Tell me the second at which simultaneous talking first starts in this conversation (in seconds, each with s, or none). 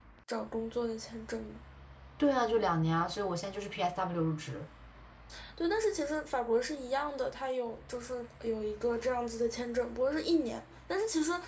none